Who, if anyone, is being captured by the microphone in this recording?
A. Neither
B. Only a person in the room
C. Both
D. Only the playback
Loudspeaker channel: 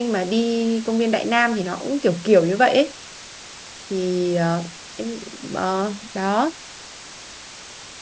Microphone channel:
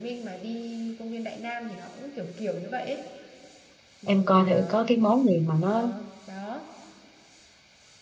C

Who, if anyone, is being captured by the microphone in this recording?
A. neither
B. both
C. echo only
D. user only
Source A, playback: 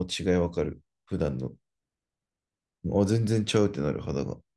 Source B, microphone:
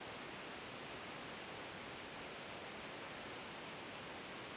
A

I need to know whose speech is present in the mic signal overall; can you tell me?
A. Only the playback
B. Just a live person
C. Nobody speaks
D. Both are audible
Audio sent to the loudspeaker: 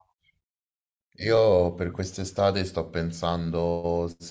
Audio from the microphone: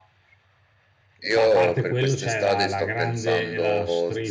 D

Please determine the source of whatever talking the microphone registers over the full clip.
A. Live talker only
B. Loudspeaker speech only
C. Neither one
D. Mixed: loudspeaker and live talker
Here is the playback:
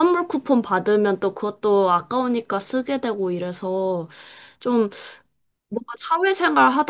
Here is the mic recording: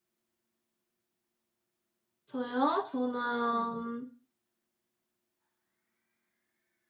A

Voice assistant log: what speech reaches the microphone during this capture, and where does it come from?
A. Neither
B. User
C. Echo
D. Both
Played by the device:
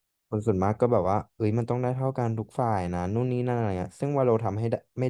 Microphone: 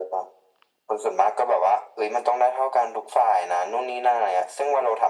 C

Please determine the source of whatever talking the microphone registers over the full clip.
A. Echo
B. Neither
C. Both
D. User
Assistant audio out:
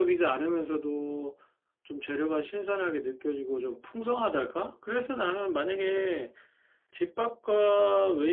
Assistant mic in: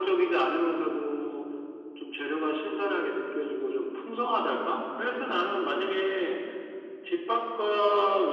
A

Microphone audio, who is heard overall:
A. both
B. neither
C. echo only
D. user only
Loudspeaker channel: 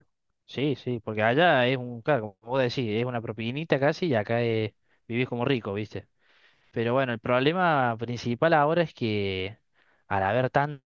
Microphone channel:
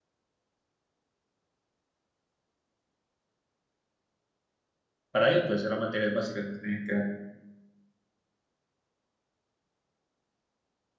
D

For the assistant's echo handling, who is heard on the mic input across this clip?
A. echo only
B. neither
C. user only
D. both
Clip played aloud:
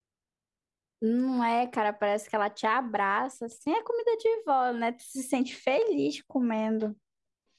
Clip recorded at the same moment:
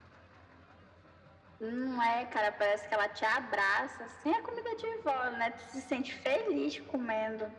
A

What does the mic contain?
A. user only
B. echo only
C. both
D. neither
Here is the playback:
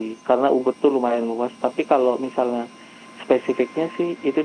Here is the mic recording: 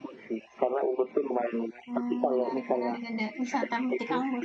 C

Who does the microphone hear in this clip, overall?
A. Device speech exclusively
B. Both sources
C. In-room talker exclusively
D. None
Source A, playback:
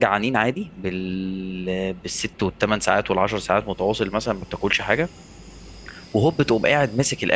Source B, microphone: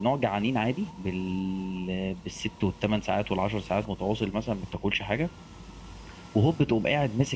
A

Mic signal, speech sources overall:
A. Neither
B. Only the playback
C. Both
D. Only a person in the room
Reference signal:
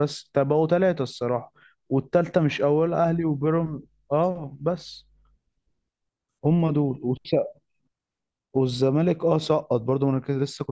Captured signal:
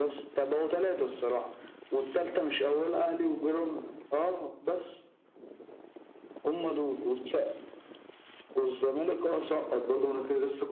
B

